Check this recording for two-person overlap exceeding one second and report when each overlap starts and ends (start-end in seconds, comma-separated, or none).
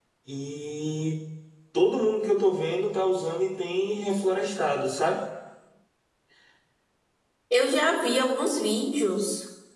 none